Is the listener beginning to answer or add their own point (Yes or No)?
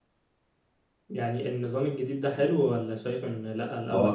Yes